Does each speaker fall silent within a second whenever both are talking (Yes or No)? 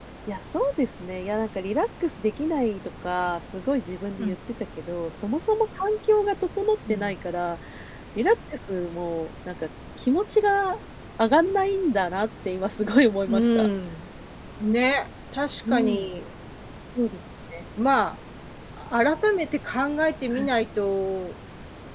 Yes